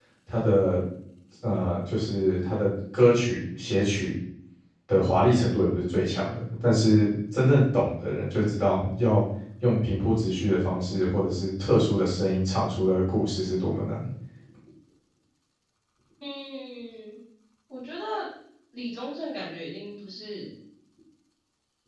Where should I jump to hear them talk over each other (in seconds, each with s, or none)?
none